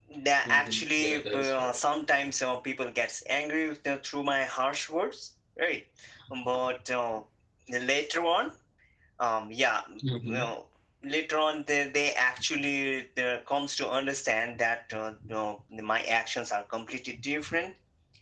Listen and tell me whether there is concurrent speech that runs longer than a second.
Yes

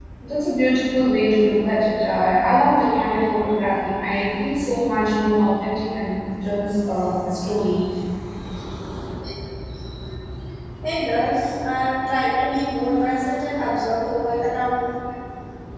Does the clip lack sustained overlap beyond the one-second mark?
Yes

